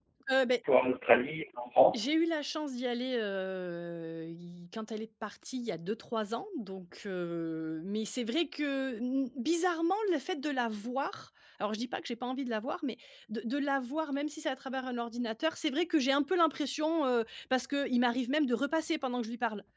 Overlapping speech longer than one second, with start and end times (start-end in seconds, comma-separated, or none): none